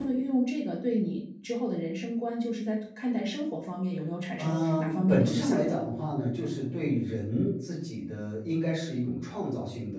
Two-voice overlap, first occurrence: 4 s

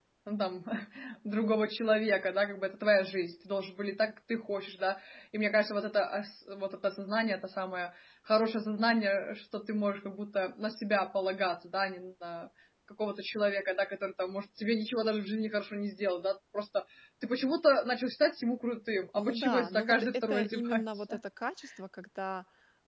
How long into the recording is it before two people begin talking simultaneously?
19 s

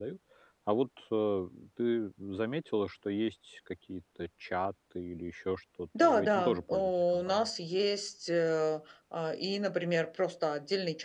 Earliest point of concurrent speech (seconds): 6 s

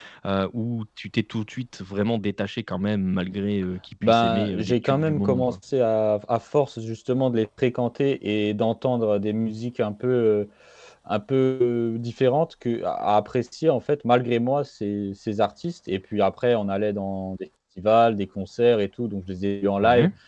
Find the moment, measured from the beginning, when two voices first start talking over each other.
4 s

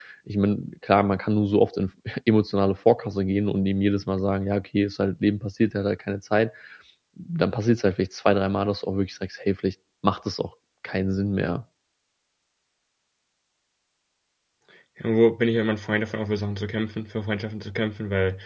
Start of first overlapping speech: none

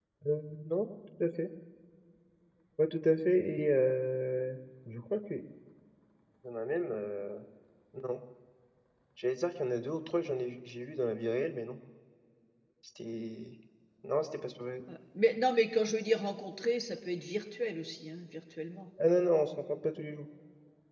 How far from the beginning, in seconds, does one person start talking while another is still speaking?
none

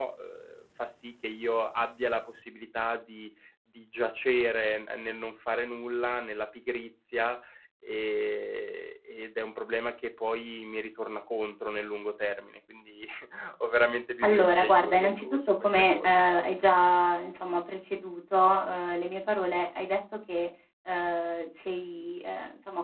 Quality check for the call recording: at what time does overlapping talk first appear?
14 s

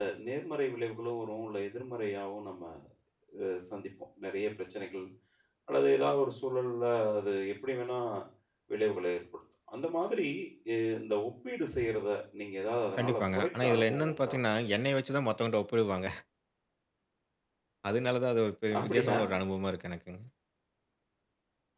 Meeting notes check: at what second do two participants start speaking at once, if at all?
13 s

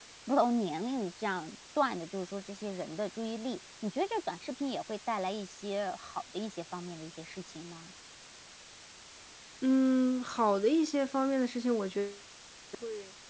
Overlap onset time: none

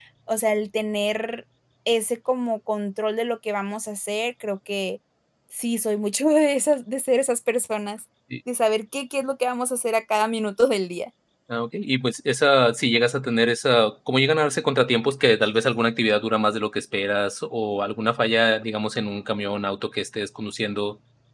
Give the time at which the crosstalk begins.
none

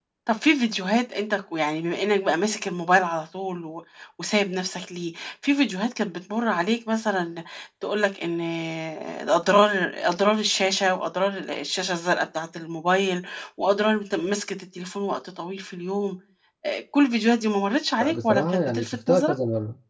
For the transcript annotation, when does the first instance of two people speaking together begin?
18 s

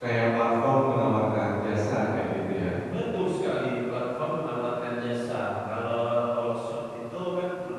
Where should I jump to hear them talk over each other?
none

